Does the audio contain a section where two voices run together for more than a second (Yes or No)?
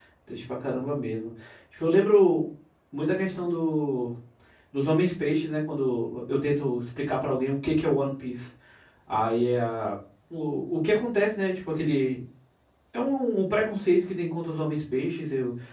No